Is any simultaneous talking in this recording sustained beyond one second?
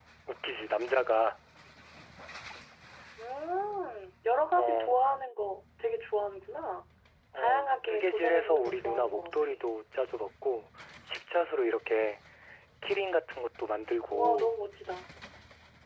Yes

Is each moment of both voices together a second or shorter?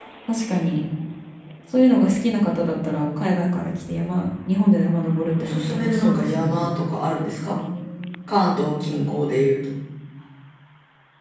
No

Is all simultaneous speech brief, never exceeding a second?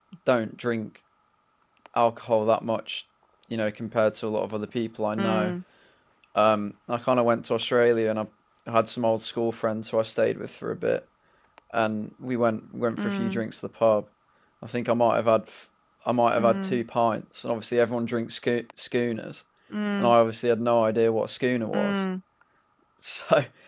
Yes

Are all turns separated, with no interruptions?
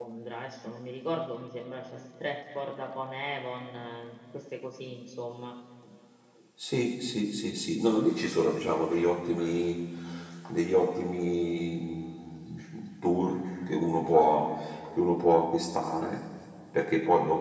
Yes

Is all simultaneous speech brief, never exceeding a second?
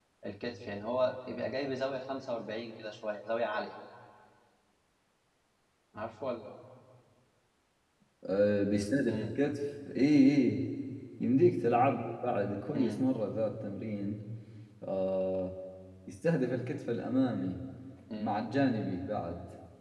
Yes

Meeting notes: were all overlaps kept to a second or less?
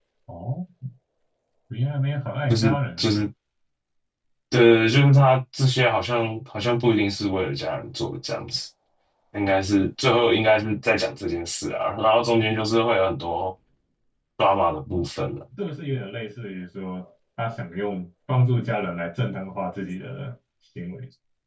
Yes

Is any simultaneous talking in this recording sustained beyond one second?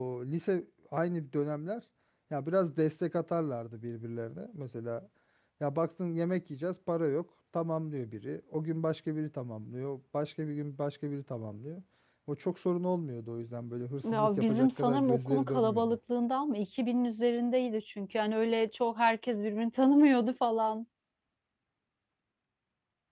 Yes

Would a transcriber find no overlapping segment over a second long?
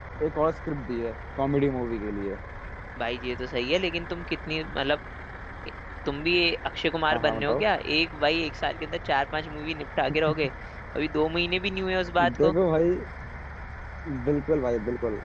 Yes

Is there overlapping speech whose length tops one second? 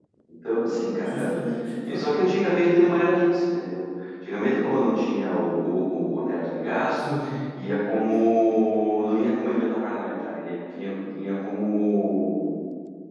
No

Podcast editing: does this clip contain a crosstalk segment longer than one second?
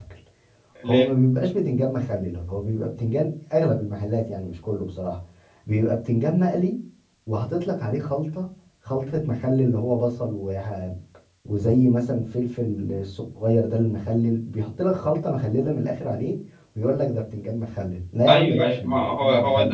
Yes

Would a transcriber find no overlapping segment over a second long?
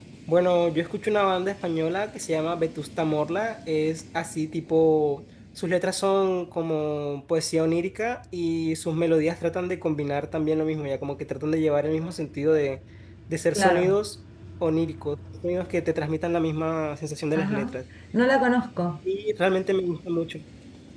Yes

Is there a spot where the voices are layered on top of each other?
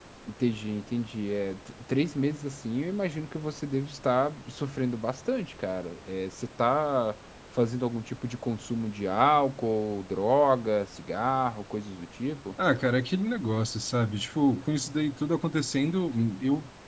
No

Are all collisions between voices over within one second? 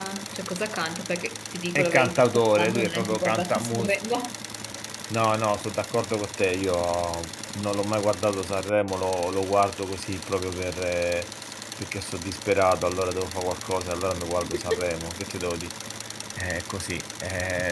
No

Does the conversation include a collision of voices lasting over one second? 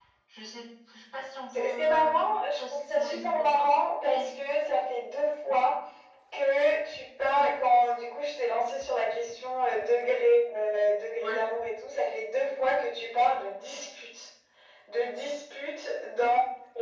Yes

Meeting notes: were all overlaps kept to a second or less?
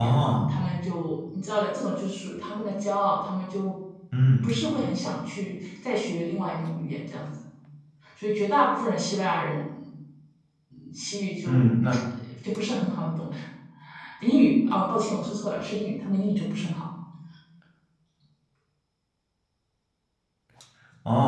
Yes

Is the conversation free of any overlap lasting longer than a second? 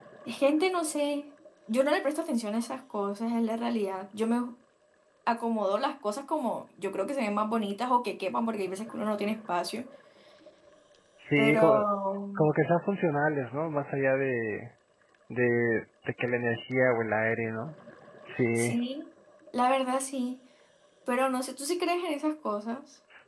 Yes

